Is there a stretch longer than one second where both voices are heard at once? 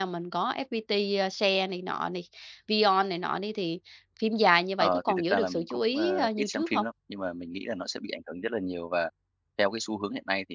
Yes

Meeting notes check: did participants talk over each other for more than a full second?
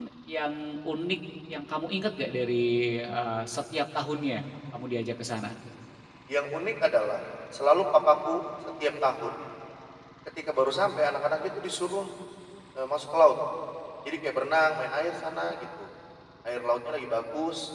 No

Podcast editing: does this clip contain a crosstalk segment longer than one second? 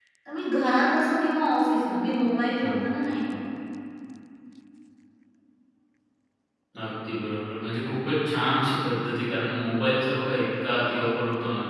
No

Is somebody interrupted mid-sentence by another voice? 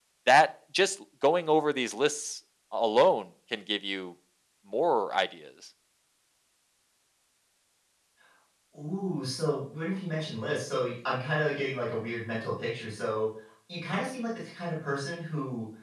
No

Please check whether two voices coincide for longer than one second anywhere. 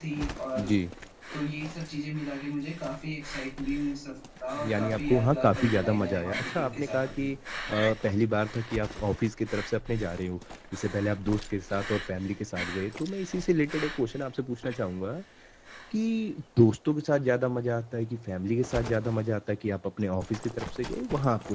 Yes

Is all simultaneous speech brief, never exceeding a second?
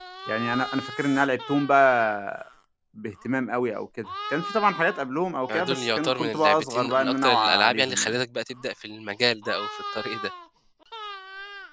No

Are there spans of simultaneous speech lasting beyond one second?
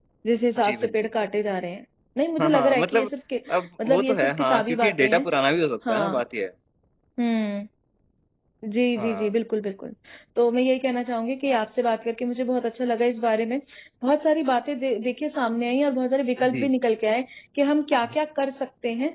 Yes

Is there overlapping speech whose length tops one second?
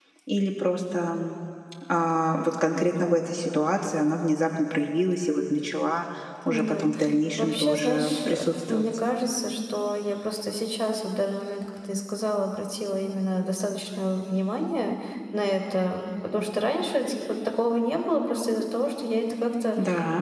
Yes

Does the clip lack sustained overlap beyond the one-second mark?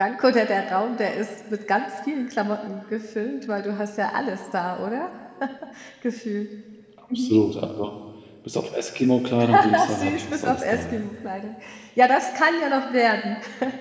No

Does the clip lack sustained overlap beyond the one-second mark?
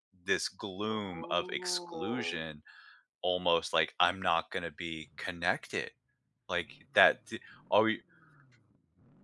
No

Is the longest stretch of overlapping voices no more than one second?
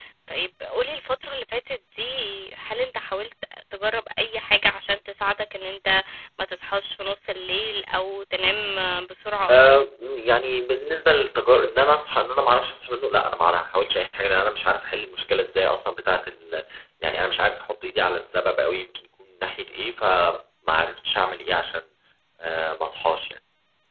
Yes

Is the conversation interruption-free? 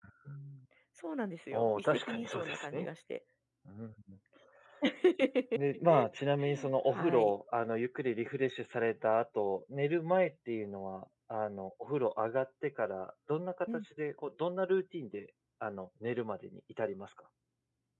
No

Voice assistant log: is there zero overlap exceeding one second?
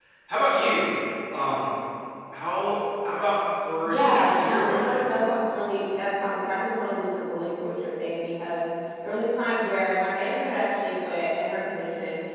No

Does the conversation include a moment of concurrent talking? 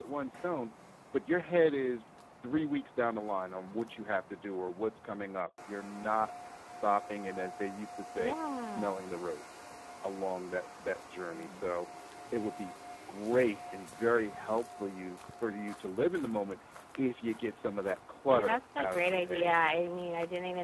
Yes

